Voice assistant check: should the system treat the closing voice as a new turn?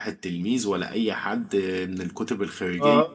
No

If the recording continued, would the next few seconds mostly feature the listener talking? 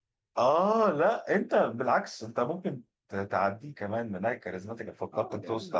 Yes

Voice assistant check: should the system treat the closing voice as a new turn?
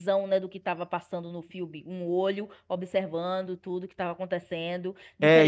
Yes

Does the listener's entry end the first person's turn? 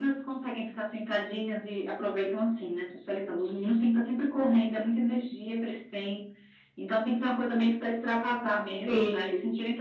No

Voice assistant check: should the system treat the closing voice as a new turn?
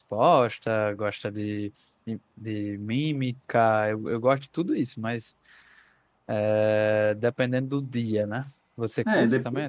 Yes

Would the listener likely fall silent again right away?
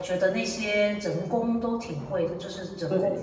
Yes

